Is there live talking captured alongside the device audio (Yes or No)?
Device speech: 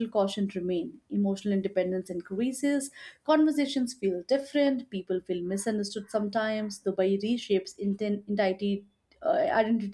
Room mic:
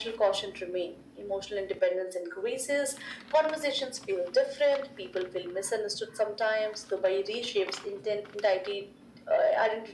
No